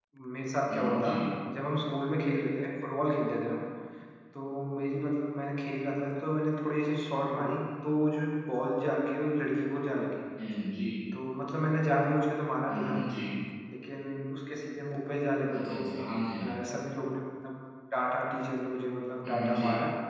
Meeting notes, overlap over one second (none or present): none